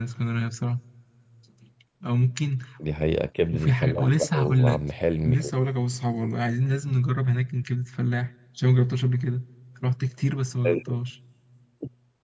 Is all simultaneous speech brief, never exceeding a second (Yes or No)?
No